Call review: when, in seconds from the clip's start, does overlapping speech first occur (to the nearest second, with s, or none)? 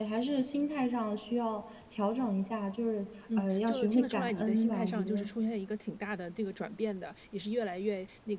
3 s